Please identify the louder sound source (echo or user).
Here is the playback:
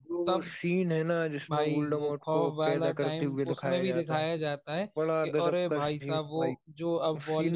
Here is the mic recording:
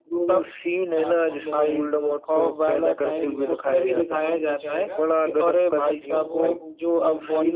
echo